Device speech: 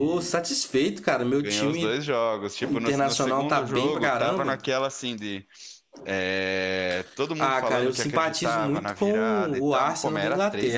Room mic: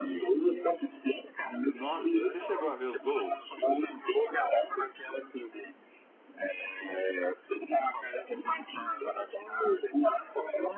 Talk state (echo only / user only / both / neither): both